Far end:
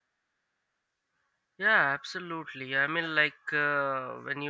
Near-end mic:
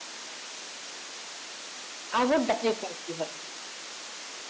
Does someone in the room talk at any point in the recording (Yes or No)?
Yes